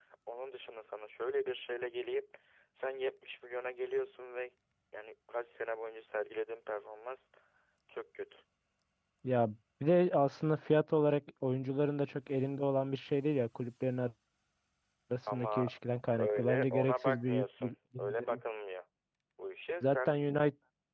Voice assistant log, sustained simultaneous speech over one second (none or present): present